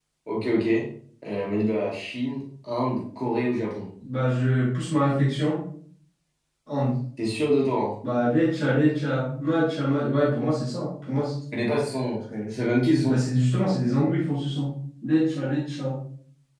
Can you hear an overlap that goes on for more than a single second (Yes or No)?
No